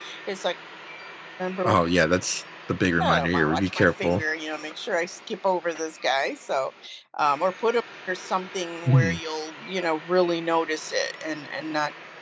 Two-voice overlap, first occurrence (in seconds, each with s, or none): 3.0 s